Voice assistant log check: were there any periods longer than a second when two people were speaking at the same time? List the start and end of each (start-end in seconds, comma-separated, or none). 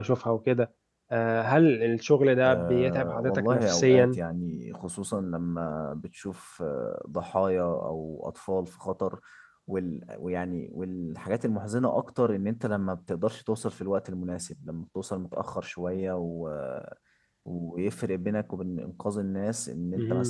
2.5-4.2